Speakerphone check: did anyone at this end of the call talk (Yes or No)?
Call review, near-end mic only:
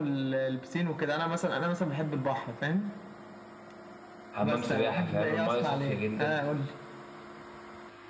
Yes